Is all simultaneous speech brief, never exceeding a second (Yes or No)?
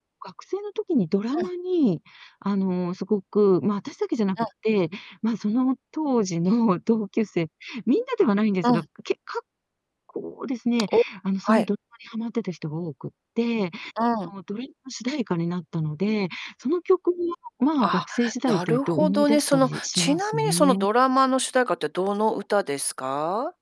No